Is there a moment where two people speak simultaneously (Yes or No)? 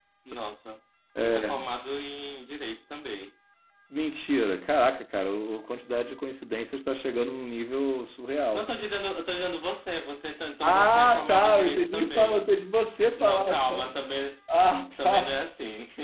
Yes